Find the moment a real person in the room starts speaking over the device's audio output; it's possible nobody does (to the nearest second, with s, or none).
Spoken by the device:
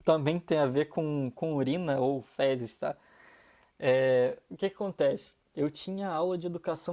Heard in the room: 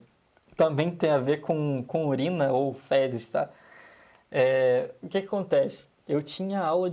none